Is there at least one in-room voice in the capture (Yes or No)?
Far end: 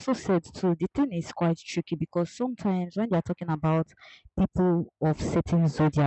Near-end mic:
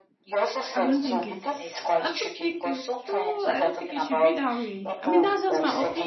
Yes